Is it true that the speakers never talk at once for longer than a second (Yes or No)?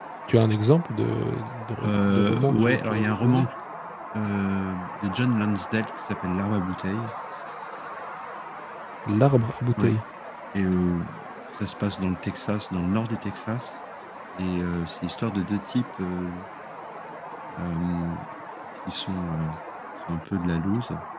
No